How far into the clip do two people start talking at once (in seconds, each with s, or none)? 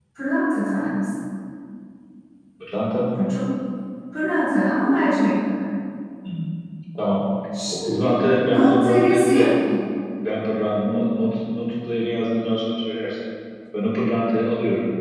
7.7 s